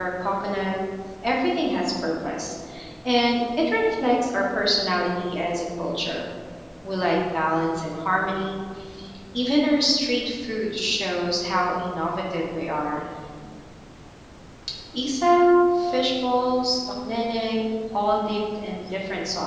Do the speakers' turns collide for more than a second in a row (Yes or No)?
No